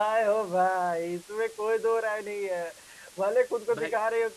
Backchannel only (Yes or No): Yes